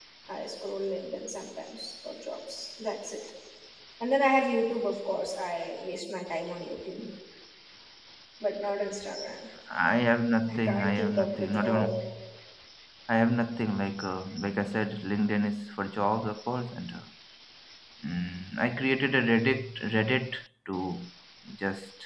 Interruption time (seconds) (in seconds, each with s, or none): 10.5 s